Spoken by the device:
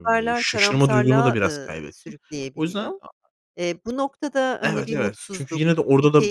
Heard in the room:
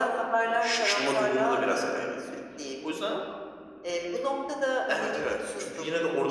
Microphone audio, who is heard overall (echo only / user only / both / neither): echo only